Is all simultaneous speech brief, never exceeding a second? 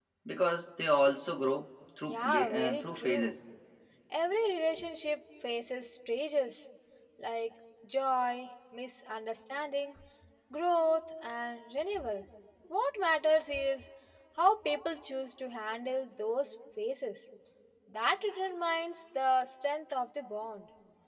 No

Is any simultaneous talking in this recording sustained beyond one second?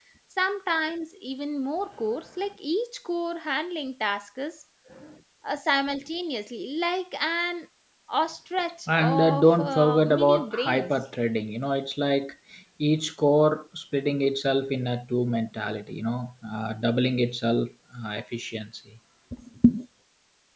Yes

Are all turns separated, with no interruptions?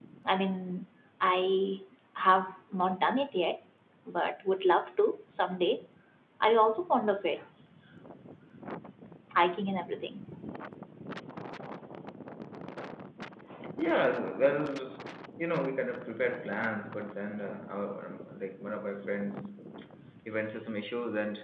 Yes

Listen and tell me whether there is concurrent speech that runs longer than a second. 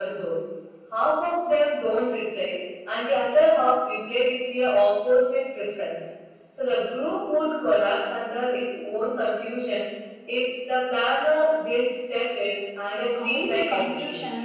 Yes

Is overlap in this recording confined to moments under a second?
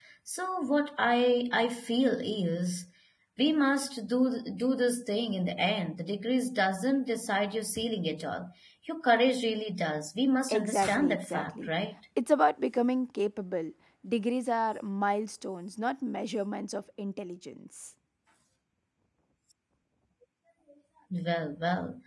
No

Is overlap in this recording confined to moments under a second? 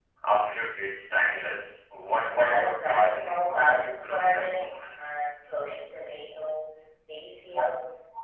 No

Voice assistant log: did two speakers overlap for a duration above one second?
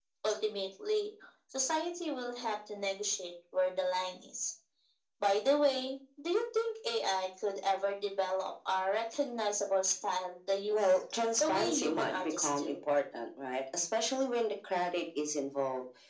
Yes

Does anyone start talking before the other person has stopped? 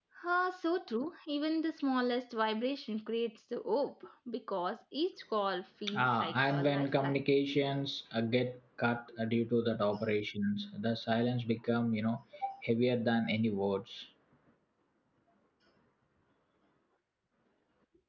Yes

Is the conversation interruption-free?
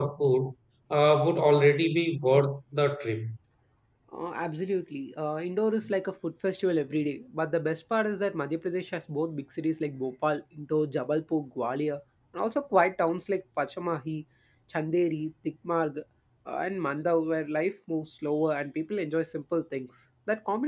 Yes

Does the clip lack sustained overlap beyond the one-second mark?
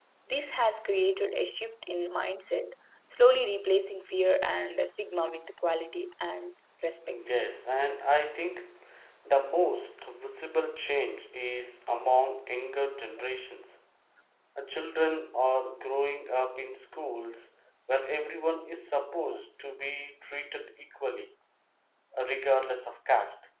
Yes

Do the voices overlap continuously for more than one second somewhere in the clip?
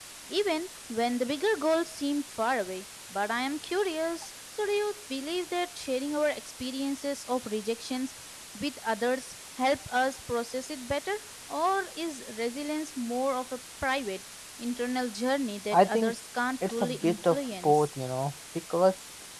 Yes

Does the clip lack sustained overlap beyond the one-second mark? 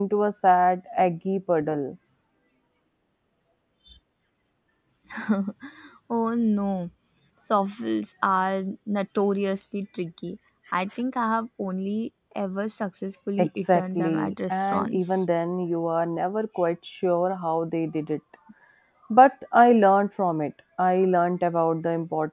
No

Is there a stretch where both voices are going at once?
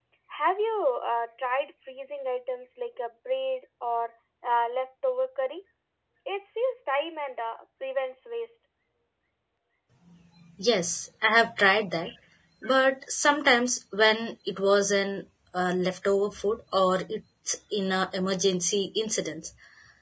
No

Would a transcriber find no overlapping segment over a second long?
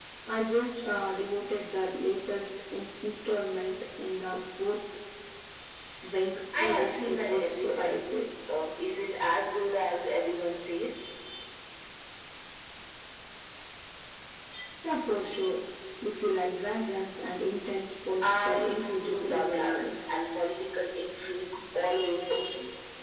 No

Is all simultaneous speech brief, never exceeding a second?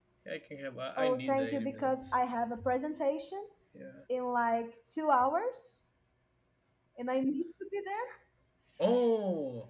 No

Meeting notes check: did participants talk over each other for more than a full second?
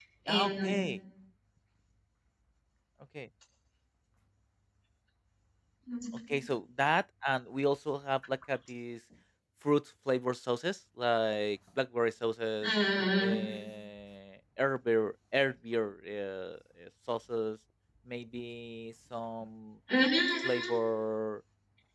No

